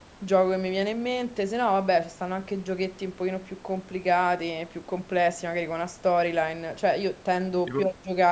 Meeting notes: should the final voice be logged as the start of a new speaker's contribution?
No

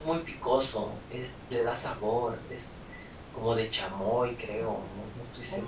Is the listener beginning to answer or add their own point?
Yes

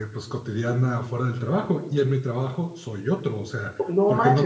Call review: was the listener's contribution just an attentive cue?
No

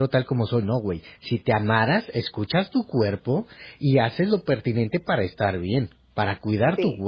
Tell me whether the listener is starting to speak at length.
No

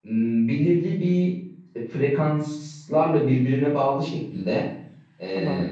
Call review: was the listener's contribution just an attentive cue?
Yes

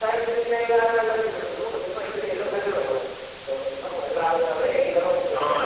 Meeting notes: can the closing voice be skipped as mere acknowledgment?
No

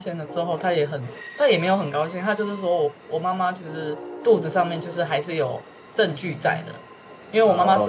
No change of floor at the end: No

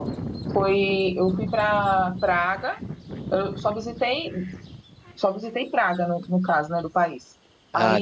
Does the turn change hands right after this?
No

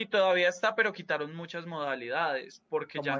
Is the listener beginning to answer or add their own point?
Yes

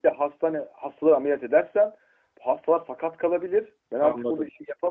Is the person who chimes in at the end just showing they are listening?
Yes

